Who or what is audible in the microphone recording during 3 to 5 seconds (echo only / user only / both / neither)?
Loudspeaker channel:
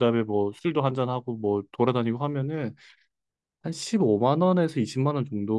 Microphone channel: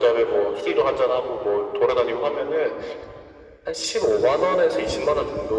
echo only